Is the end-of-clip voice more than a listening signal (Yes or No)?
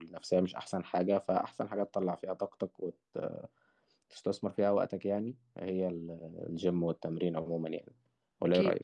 Yes